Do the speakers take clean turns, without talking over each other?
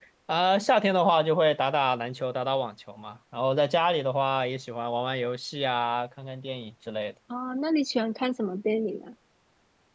Yes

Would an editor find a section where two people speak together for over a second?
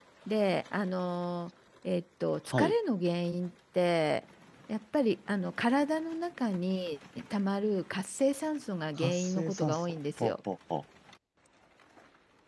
Yes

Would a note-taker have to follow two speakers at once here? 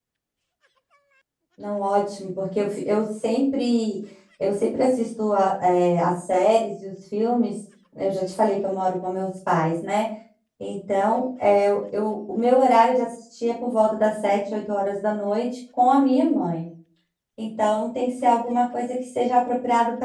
No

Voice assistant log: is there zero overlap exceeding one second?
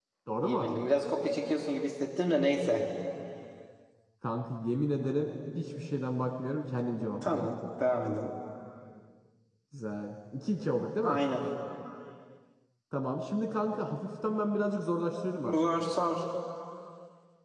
Yes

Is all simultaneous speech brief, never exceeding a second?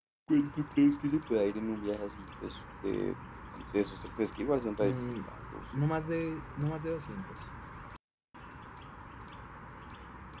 Yes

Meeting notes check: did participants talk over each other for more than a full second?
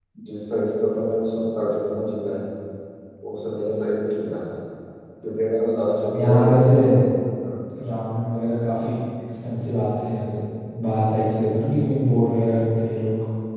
No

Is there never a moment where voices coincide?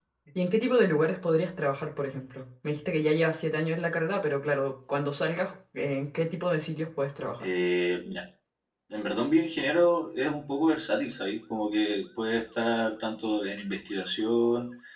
Yes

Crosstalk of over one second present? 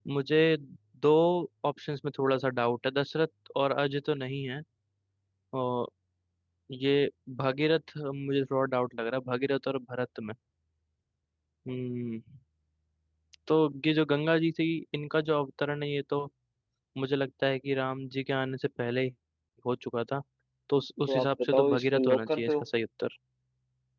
Yes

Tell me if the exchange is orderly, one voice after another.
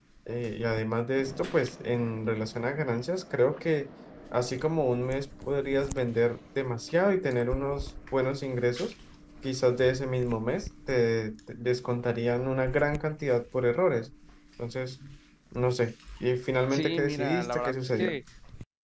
No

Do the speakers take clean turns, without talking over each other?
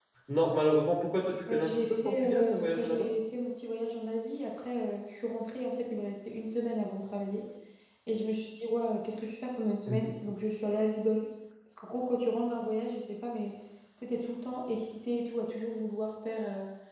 No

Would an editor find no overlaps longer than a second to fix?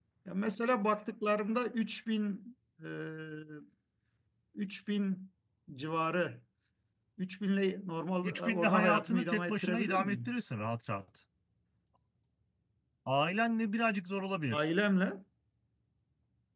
No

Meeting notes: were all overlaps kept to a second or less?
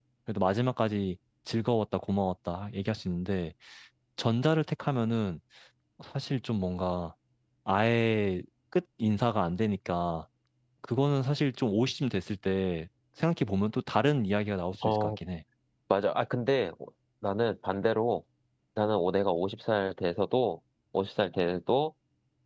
Yes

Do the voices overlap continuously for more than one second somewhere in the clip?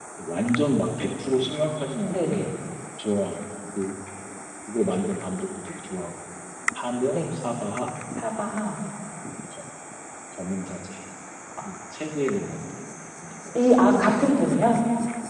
No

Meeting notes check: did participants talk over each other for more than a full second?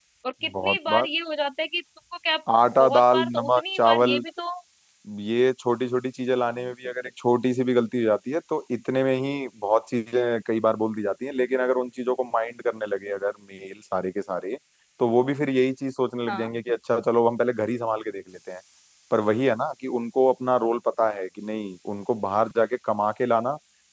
Yes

